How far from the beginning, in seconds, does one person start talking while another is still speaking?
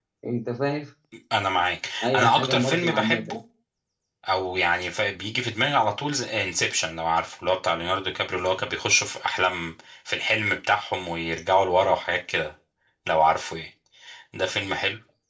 2.0 s

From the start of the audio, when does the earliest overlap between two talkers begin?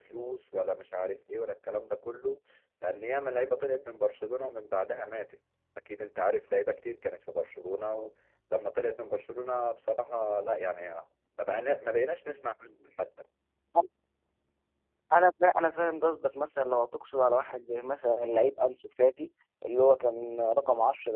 none

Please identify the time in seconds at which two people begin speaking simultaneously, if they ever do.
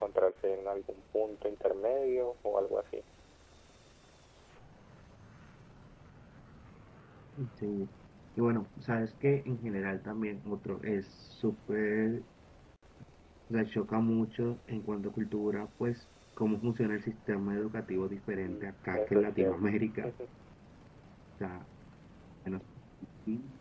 18.4 s

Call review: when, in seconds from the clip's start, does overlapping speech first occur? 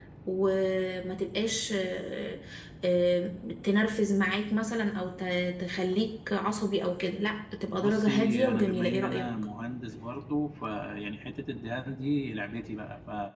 7.7 s

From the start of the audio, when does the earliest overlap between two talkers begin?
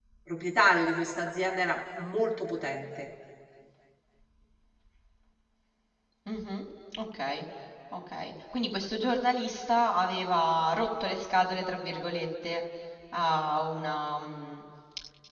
none

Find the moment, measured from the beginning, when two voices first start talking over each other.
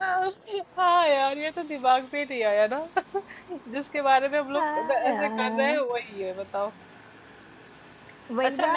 4.5 s

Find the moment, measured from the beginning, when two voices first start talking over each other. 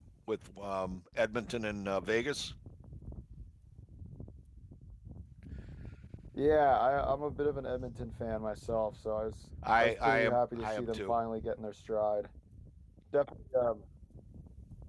9.6 s

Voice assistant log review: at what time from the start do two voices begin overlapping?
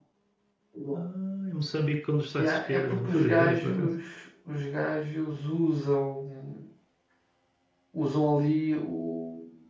2.4 s

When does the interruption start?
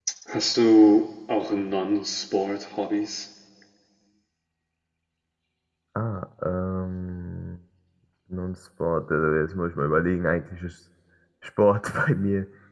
none

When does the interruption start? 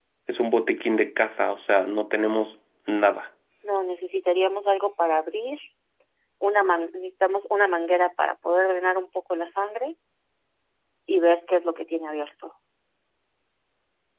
none

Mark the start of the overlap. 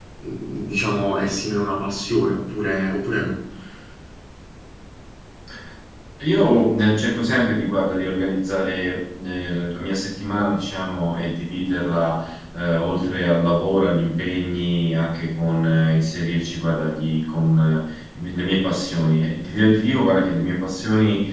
none

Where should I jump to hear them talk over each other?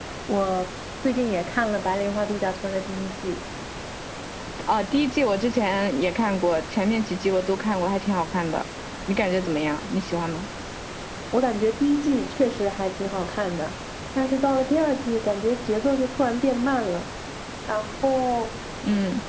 none

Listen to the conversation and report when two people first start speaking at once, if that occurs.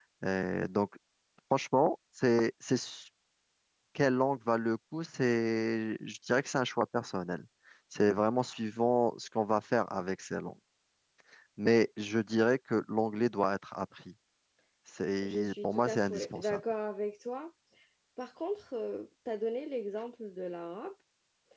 15.2 s

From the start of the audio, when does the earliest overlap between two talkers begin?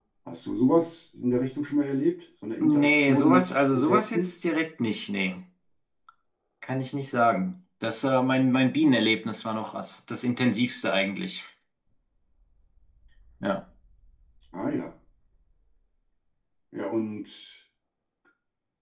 2.6 s

